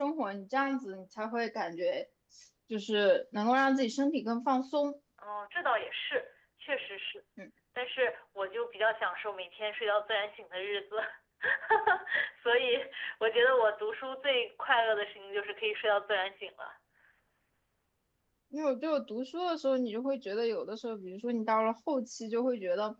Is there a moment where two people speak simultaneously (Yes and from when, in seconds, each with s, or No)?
No